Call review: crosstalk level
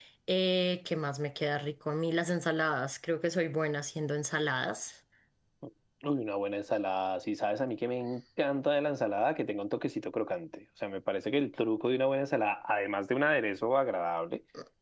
none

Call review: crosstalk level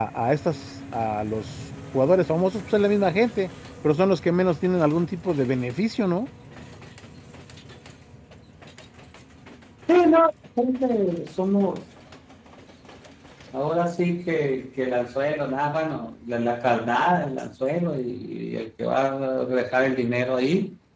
none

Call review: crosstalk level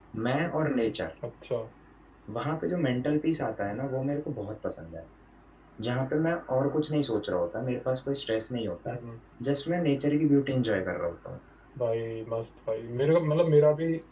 none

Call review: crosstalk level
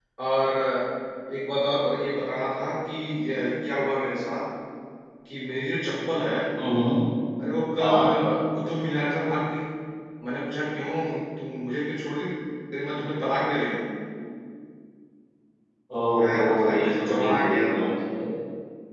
present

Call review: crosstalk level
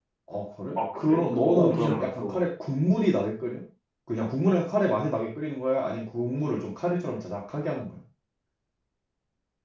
present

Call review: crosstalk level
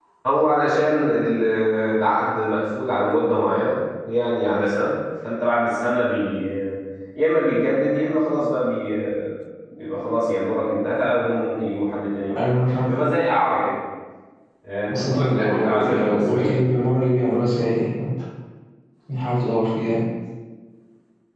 present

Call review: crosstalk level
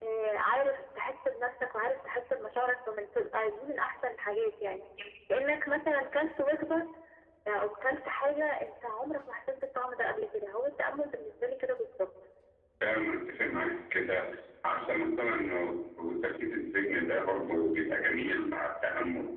none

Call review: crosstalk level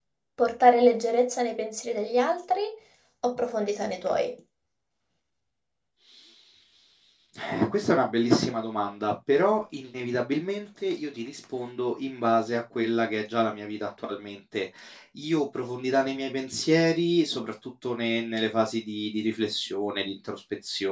none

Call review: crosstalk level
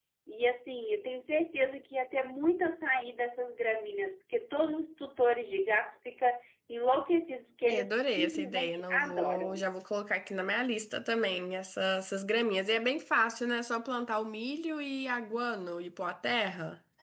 present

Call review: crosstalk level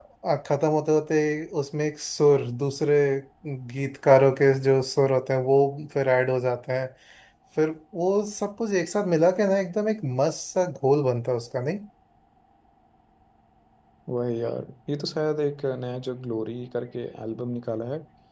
none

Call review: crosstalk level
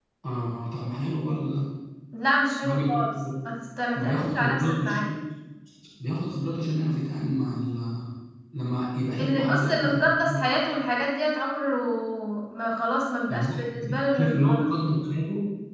present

